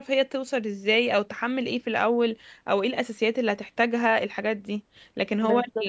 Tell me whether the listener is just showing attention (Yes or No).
Yes